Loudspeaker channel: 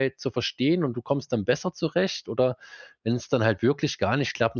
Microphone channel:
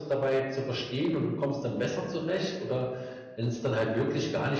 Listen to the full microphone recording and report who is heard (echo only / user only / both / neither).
echo only